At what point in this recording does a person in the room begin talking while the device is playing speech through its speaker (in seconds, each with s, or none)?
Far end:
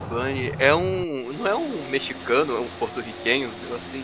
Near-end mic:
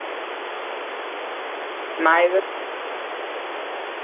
2.0 s